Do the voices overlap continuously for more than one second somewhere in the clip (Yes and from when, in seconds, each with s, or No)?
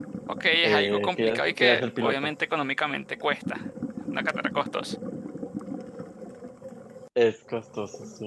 Yes, from 0.6 s